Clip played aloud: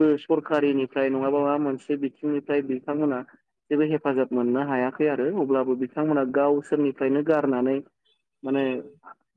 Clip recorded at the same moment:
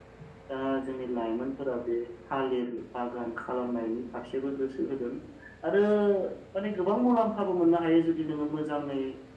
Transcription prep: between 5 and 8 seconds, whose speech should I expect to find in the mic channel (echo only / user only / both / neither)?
user only